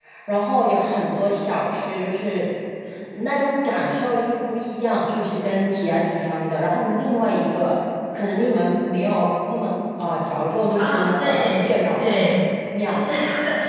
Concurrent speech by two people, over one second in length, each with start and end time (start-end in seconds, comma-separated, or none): 10.7-12.1